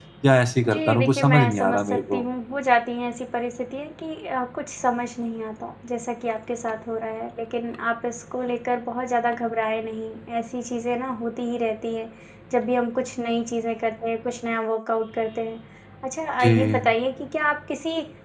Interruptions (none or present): present